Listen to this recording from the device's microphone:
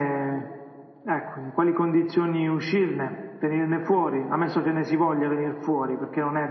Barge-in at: none

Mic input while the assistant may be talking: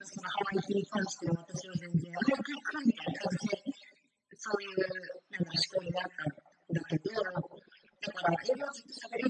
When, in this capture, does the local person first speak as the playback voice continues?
none

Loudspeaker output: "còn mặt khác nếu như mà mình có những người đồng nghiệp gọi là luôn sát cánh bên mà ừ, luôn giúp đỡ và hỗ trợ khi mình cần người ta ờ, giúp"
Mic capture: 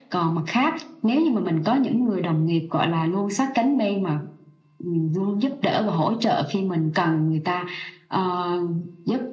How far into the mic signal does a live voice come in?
none

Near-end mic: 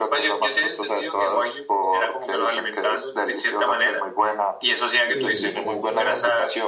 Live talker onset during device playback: 5.1 s

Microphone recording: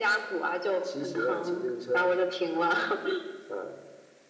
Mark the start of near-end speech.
none

